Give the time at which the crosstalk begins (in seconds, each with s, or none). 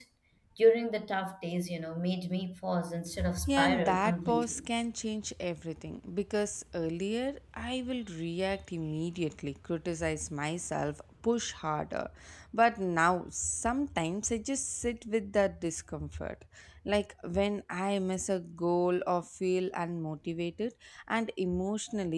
3.4 s